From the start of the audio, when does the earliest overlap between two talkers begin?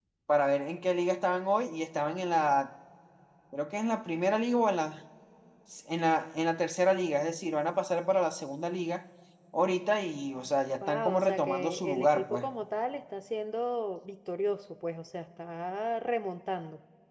11 s

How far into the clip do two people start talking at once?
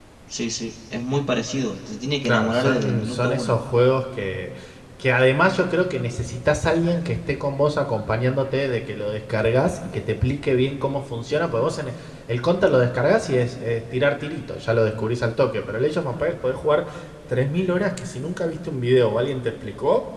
2 s

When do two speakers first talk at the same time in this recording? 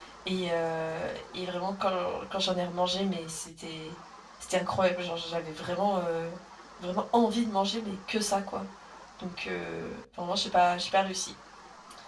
none

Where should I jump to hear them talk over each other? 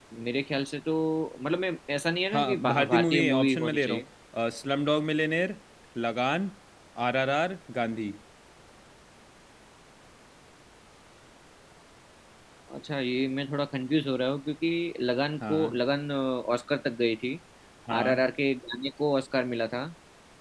2 s

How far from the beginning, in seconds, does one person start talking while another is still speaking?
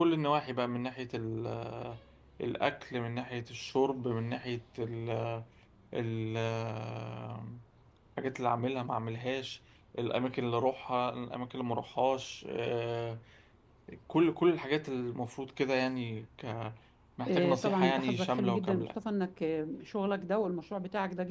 17 s

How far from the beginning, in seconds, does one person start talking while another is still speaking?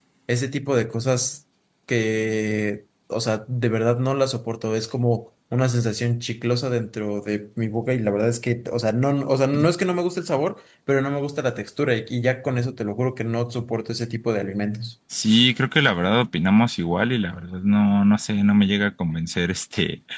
none

